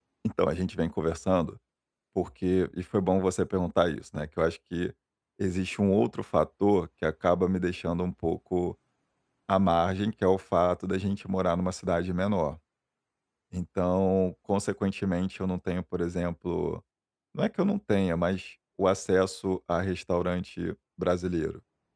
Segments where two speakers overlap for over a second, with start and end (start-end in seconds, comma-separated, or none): none